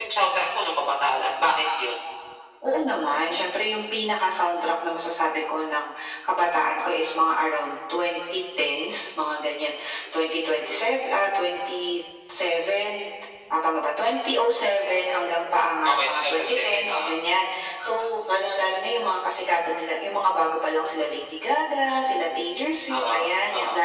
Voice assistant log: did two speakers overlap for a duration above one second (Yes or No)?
Yes